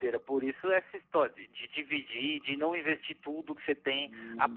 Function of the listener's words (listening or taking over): listening